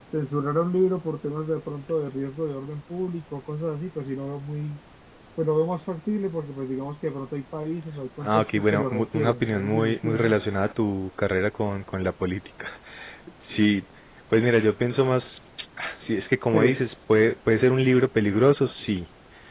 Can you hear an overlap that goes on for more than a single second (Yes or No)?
Yes